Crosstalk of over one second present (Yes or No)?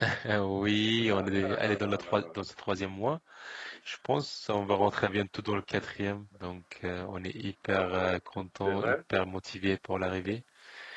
Yes